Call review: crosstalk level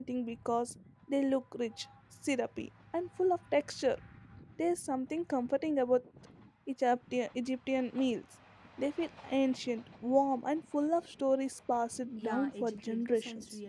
present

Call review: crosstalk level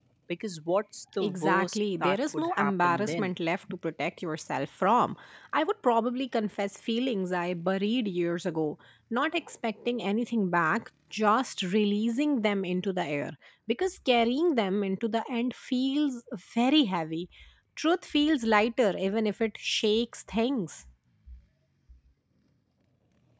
present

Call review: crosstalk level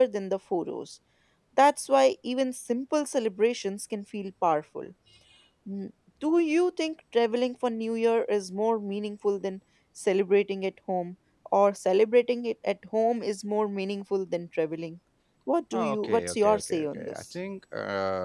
present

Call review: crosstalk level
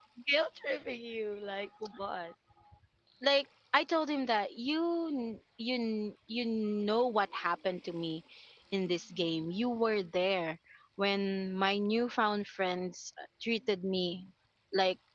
none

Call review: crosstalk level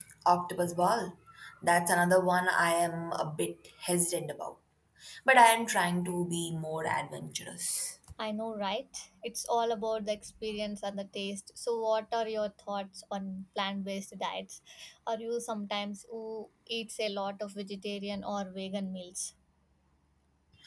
none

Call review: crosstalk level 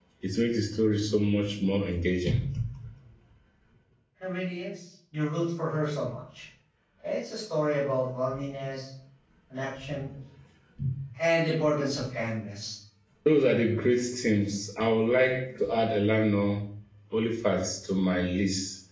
none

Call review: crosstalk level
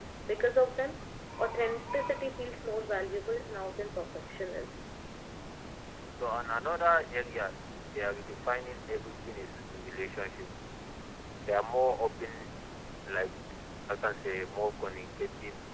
none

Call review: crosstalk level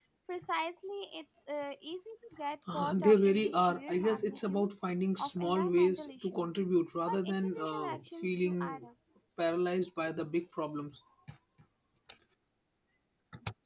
present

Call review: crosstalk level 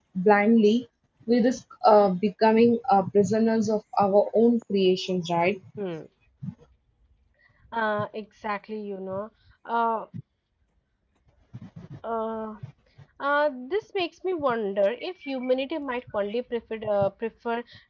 none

